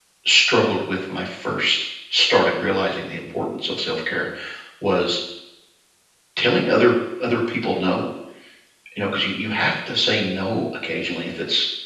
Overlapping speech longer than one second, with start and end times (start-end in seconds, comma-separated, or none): none